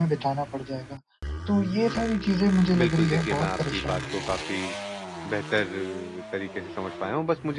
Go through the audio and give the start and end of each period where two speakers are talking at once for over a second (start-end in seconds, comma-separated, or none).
2.8-4.3